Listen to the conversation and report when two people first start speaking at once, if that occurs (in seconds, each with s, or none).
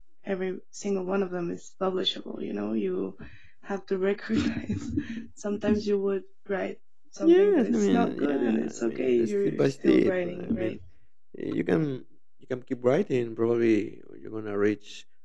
7.2 s